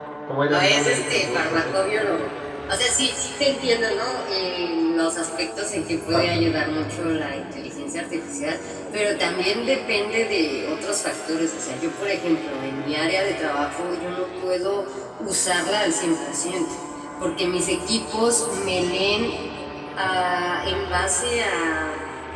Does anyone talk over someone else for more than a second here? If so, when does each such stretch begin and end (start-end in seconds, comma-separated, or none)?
0.5-1.8